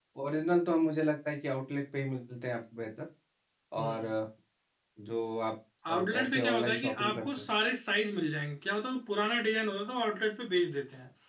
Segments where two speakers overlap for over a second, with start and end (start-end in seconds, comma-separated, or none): 5.9-7.5